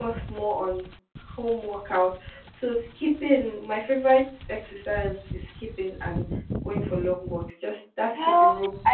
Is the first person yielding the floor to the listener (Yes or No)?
Yes